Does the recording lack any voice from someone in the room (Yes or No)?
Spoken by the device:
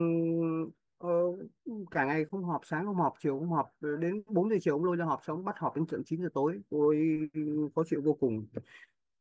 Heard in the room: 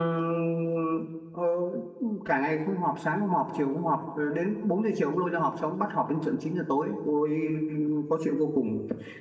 Yes